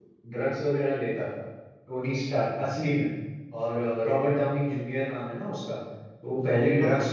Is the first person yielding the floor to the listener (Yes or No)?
No